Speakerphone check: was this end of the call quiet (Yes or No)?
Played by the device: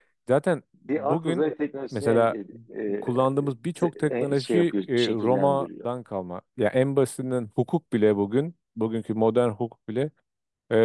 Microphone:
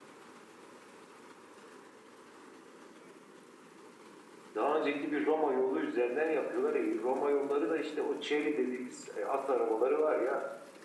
No